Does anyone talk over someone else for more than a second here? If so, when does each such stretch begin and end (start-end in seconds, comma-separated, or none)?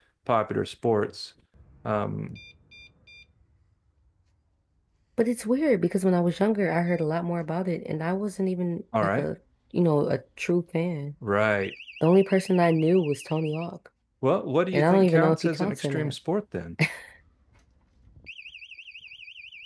14.7-16.1